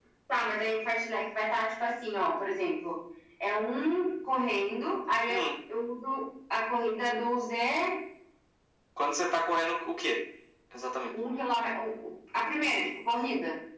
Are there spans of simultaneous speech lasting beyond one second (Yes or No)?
No